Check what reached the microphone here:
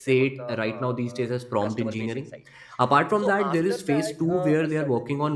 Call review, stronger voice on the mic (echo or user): user